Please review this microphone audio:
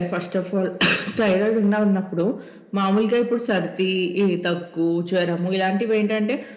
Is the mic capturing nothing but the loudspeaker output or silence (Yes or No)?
Yes